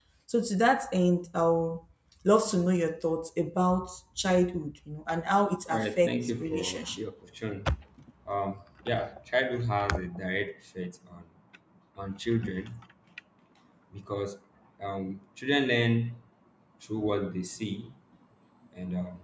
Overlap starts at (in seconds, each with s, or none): 5.7 s